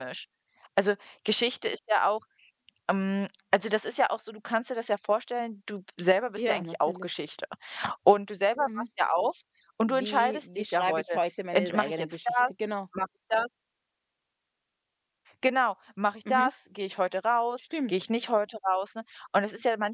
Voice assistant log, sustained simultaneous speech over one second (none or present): present